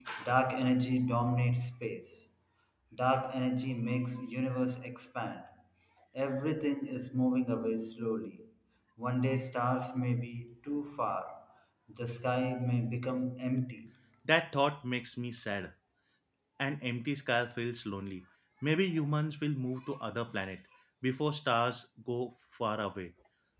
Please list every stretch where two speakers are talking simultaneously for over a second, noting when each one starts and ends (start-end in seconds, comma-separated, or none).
none